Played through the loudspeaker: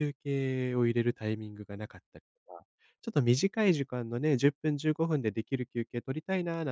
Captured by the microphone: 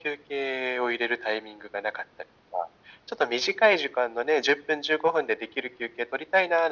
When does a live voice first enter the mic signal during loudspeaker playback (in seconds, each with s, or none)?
none